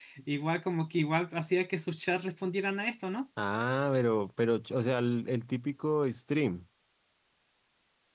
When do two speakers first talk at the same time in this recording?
none

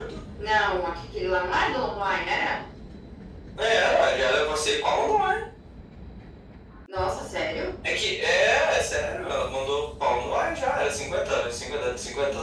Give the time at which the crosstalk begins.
none

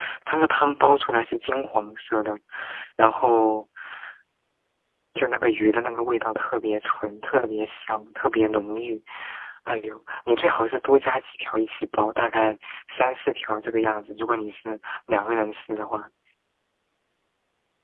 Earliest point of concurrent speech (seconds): none

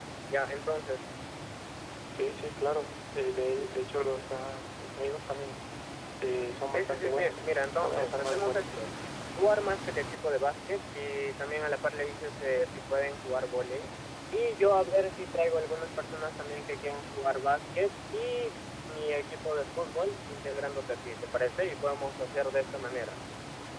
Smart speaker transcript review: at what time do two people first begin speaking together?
6.7 s

